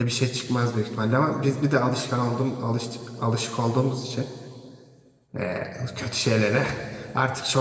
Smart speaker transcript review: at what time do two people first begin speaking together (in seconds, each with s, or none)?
none